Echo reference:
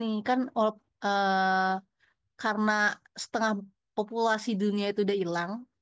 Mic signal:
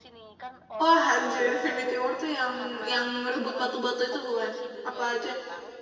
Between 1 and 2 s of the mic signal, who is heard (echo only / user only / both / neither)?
both